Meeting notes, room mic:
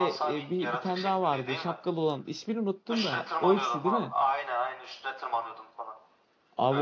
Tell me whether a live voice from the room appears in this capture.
Yes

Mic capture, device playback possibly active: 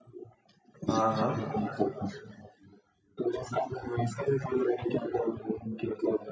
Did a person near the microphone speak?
Yes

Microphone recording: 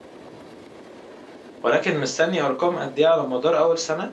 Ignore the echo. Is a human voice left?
Yes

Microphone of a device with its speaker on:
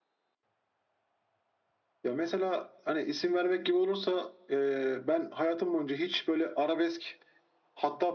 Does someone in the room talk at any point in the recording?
No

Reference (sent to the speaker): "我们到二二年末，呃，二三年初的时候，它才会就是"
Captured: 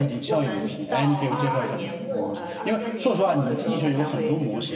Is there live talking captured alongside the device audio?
Yes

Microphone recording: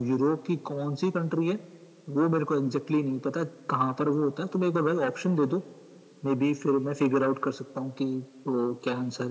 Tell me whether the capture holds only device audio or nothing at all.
Yes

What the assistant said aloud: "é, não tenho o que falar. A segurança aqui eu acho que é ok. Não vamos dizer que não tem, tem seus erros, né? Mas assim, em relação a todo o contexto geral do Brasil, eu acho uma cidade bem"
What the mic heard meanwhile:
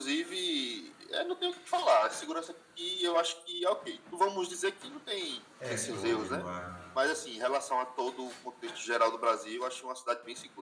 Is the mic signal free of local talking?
No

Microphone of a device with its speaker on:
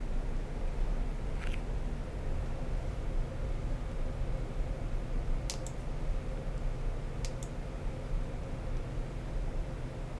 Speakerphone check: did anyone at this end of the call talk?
No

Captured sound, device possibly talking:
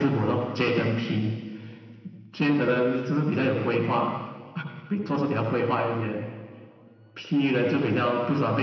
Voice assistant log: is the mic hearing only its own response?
Yes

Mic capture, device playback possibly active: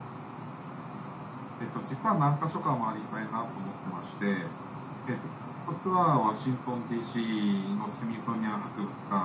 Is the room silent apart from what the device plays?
Yes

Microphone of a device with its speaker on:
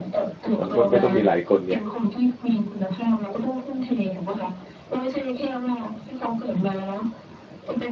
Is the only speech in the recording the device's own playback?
No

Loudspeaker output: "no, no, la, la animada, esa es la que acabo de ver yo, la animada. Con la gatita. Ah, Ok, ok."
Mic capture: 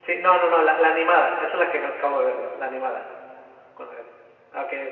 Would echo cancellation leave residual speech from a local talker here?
No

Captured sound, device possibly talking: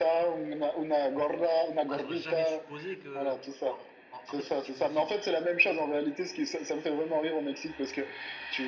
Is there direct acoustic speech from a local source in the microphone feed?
Yes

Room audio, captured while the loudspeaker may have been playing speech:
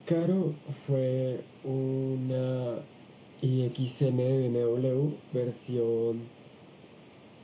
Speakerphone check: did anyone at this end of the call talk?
No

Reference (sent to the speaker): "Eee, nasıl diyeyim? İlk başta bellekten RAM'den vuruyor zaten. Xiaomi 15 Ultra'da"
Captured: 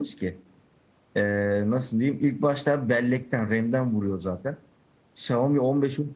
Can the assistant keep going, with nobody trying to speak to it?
Yes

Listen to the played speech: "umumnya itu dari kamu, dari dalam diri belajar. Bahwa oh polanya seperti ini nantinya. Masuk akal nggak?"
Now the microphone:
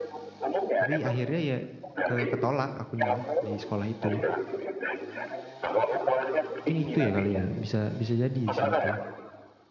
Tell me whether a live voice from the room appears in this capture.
Yes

